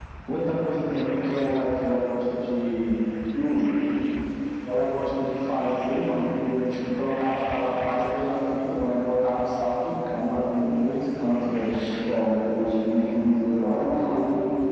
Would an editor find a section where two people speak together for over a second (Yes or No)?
No